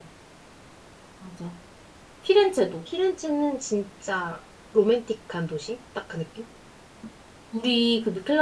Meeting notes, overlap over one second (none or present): none